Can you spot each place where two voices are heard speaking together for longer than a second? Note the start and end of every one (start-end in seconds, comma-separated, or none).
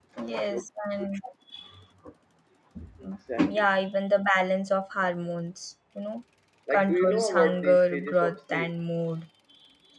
6.8-8.7